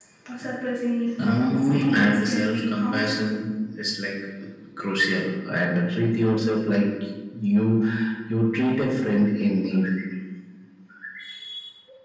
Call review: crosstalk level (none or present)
present